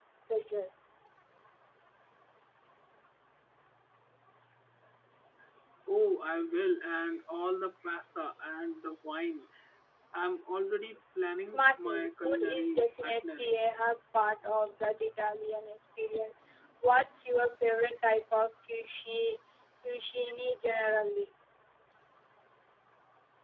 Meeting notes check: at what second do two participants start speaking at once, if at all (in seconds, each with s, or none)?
11.4 s